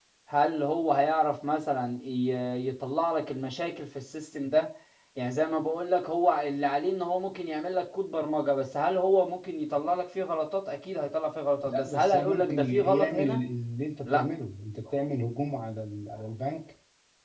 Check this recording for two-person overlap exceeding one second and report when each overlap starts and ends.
11.6-13.4

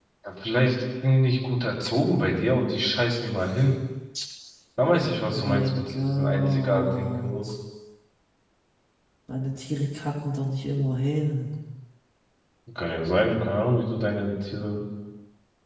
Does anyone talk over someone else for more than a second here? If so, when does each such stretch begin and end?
5.0-7.5

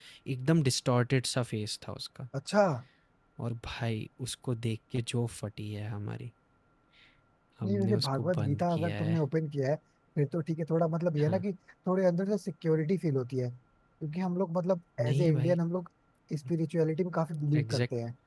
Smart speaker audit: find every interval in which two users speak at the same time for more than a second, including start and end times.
7.6-9.2

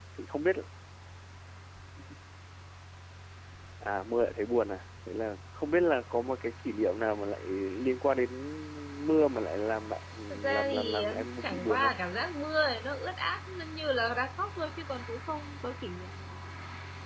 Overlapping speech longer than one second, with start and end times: 10.5-11.9

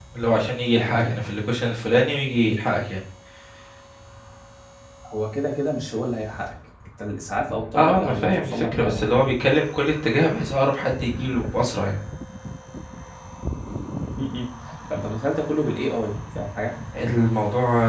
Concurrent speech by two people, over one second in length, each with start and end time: 7.7-9.0

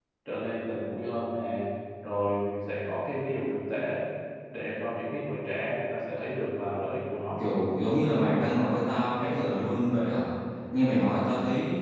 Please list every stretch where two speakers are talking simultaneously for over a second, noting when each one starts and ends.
none

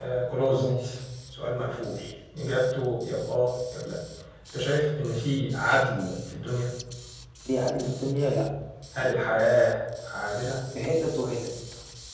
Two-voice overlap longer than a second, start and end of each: none

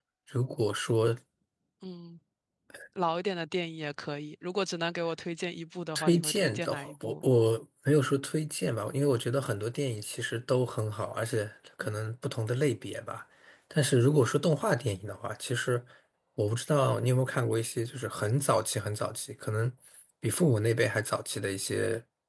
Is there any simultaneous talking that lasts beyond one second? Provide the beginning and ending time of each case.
6.0-7.2

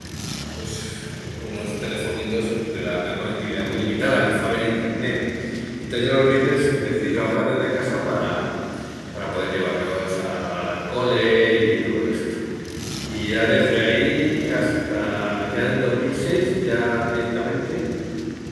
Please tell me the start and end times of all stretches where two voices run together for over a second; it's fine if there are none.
none

